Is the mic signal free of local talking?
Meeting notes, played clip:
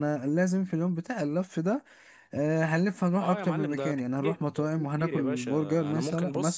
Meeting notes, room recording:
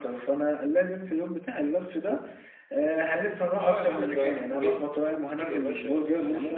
Yes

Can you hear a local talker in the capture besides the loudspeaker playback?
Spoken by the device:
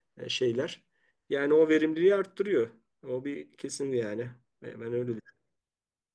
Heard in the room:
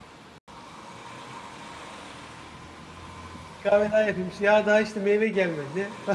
Yes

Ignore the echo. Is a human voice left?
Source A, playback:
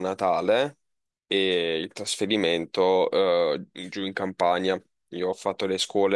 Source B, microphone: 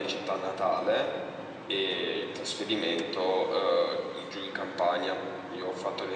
No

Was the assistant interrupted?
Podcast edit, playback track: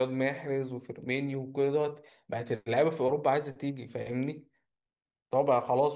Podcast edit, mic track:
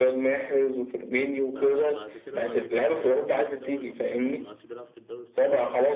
Yes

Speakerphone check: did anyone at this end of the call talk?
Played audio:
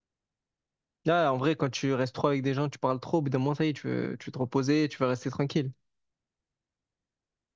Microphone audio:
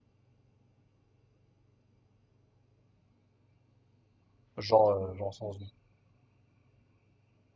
Yes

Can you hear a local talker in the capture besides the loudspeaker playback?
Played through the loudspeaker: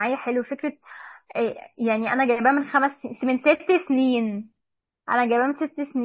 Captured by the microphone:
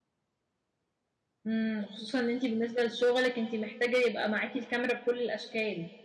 Yes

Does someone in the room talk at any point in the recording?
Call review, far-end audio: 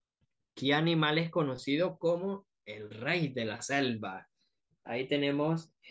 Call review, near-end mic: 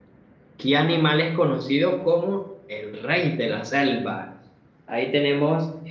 No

